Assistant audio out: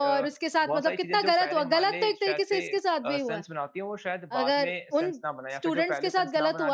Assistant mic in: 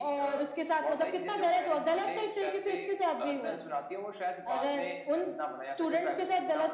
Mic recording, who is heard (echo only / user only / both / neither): echo only